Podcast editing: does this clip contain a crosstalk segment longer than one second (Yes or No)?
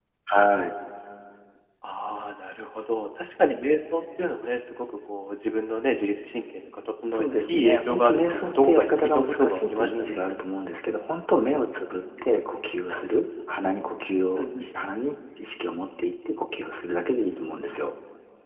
Yes